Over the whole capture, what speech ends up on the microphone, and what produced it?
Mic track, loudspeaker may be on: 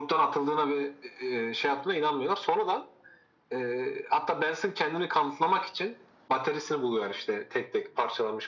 echo only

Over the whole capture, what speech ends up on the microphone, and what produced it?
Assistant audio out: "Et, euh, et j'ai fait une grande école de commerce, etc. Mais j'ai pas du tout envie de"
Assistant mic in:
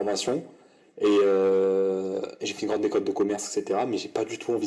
echo only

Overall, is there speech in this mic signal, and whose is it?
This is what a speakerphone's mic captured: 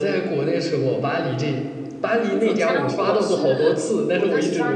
both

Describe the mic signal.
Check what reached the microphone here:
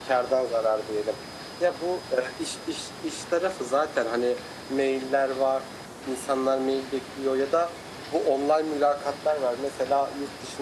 echo only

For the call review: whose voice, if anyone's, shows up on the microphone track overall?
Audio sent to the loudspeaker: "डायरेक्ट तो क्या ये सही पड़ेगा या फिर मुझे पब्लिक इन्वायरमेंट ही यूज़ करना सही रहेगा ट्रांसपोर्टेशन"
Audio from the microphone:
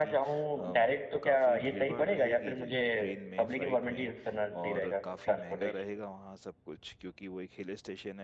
both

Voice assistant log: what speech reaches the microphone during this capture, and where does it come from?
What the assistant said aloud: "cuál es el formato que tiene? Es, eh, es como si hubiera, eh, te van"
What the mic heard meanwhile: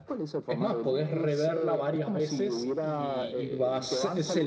both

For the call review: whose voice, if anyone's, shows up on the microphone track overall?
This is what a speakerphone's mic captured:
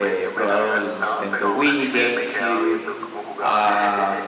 both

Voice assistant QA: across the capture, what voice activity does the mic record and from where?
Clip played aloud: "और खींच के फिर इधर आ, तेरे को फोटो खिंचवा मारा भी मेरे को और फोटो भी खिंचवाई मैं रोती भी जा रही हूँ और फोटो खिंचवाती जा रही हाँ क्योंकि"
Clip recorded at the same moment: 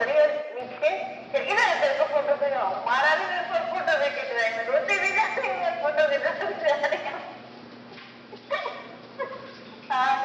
echo only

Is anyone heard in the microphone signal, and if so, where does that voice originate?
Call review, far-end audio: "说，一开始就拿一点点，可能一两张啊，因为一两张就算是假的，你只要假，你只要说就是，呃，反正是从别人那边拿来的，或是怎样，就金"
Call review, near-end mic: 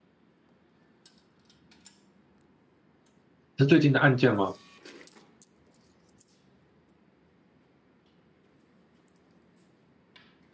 user only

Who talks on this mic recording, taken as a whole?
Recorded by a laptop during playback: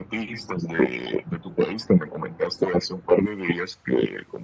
echo only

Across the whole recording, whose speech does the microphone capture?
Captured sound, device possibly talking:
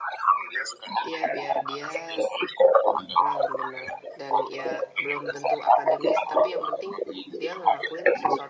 both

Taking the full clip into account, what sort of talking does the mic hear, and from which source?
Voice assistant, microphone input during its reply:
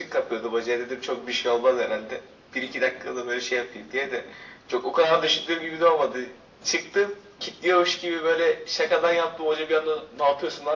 echo only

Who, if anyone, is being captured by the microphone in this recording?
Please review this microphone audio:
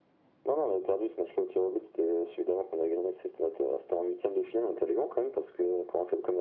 echo only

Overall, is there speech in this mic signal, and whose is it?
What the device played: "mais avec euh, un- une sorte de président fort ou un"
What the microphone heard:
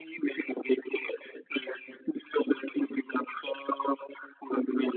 echo only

